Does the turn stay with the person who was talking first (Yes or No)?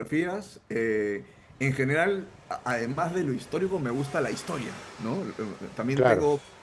Yes